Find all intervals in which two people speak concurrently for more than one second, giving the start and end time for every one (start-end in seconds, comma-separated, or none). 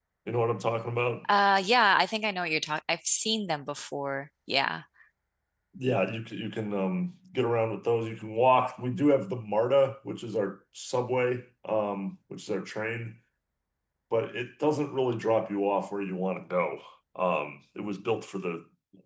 none